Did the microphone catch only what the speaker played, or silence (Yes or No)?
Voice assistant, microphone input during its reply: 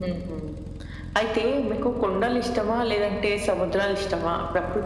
Yes